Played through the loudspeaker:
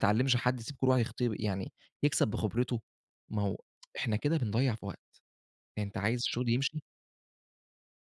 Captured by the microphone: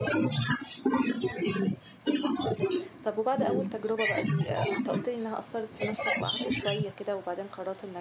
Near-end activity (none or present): present